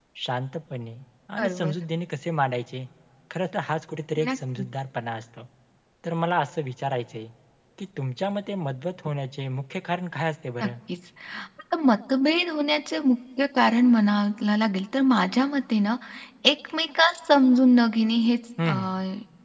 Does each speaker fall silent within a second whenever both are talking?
Yes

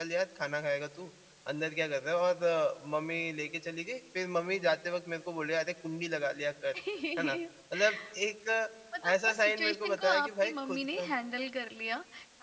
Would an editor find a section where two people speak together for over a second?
Yes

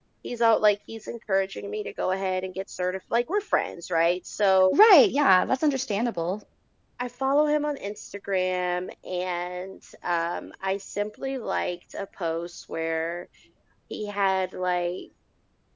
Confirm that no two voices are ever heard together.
Yes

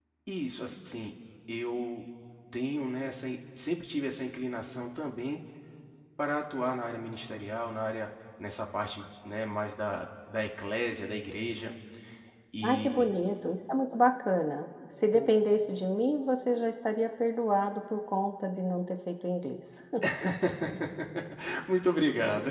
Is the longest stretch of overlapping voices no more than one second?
Yes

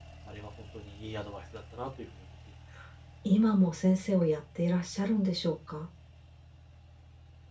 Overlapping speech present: No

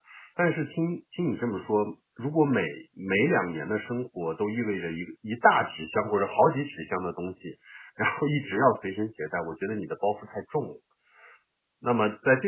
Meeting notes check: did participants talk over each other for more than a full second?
No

